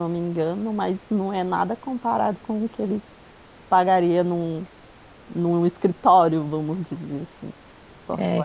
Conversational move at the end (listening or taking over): taking over